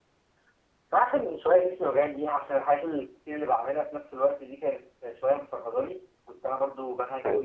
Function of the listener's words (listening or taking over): listening